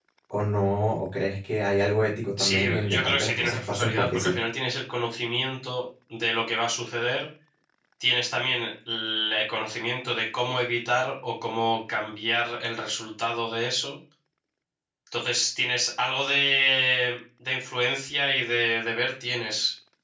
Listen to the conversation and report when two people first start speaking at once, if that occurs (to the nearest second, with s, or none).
2 s